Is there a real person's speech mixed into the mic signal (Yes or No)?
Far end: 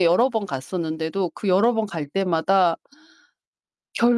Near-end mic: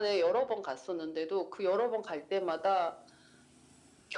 No